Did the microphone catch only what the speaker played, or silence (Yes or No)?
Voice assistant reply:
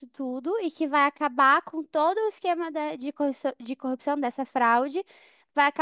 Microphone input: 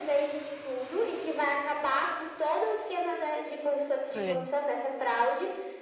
No